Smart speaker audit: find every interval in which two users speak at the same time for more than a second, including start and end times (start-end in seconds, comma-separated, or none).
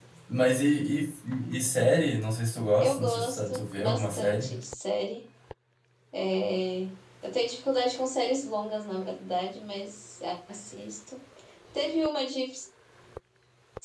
2.8-4.6